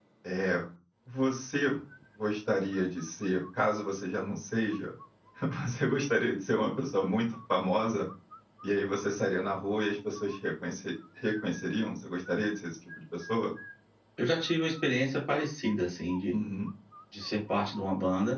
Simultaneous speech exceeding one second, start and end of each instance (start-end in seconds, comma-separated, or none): none